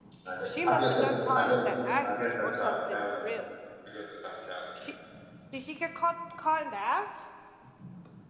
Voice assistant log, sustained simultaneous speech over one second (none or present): present